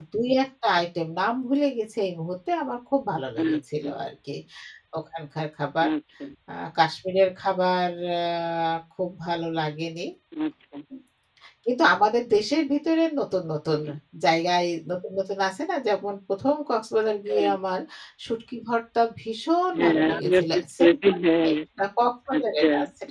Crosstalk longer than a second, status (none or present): present